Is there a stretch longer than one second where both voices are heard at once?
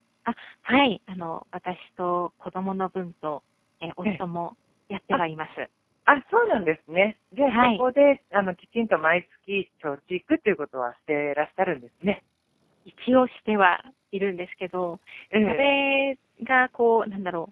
No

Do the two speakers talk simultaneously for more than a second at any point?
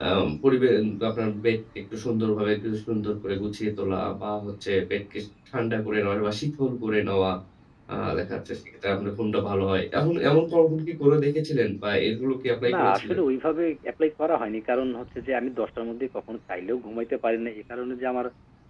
No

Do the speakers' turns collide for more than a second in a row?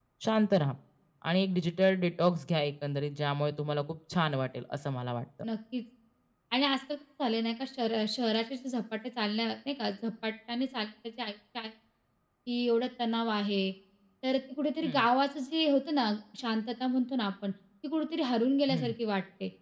No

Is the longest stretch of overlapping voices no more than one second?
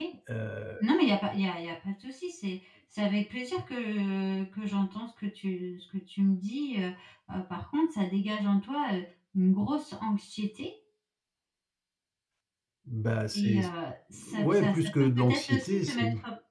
No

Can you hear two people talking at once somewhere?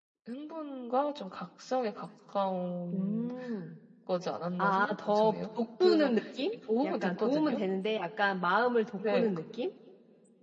Yes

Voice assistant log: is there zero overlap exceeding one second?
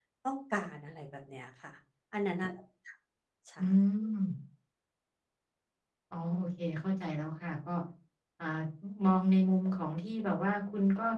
Yes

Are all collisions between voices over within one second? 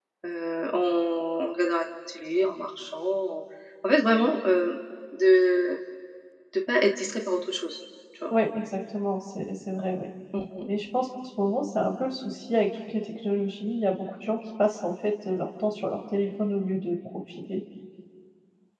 Yes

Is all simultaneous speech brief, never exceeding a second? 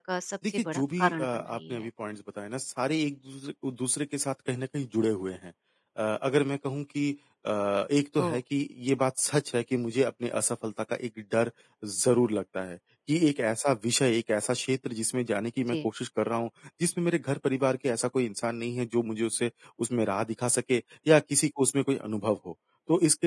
No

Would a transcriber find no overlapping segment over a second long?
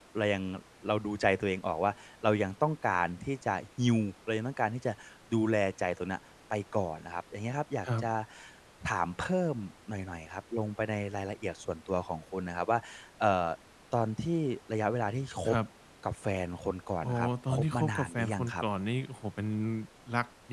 No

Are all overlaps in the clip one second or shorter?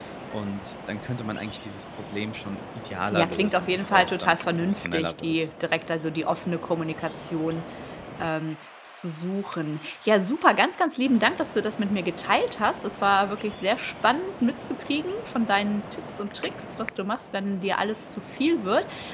No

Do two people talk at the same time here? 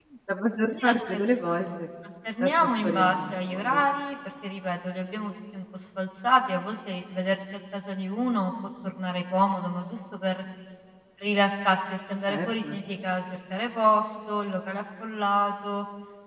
Yes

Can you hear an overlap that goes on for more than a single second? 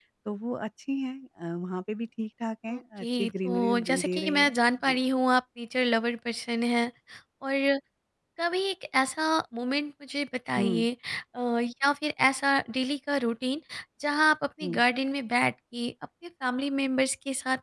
Yes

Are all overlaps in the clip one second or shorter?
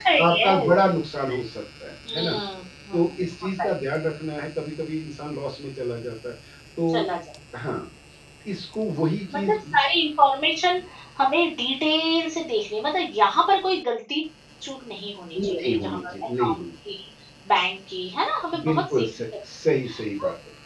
No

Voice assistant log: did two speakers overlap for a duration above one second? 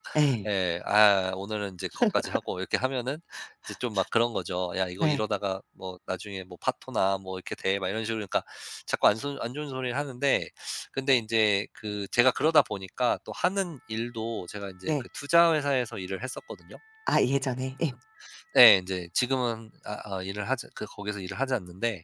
No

